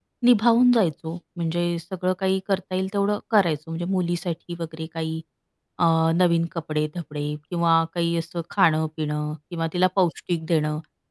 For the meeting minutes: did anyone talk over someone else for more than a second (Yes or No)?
No